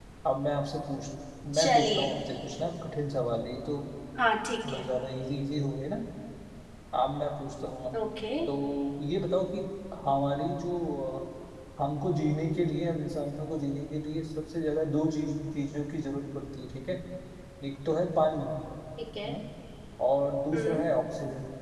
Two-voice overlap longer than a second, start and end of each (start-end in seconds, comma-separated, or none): none